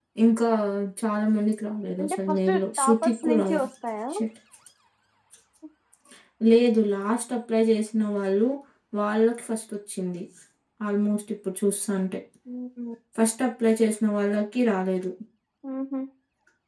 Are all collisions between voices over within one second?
No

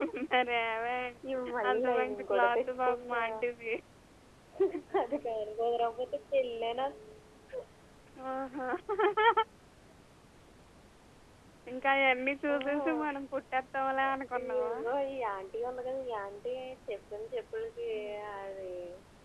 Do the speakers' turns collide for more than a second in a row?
Yes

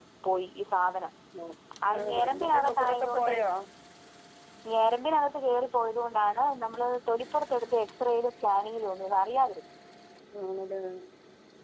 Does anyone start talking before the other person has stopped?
Yes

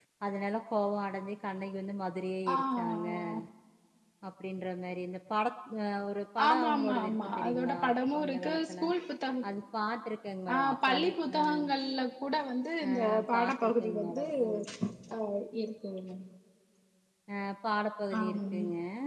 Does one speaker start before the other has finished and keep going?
Yes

